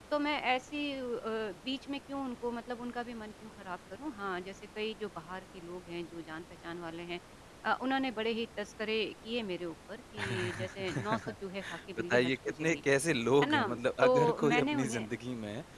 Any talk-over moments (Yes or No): Yes